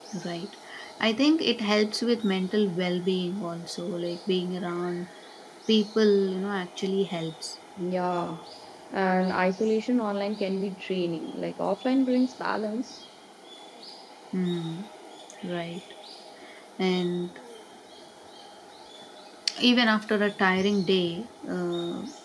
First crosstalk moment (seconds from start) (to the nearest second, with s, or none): none